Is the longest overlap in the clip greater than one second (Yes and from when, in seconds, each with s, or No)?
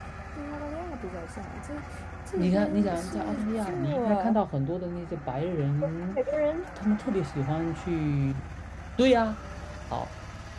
Yes, from 2.4 s